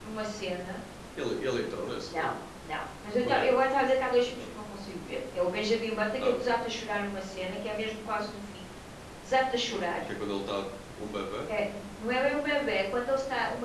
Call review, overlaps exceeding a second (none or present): none